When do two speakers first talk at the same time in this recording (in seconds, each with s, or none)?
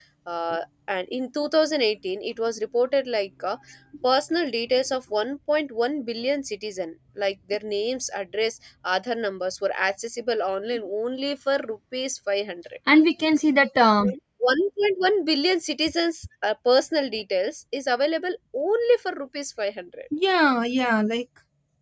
none